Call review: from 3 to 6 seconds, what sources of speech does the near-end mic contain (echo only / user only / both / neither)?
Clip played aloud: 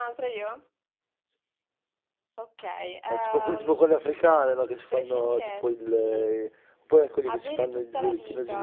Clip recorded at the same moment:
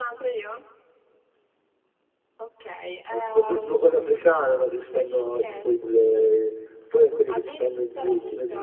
echo only